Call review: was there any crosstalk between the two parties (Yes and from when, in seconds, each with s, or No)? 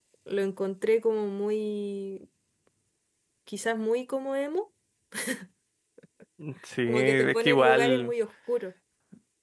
Yes, from 6.9 s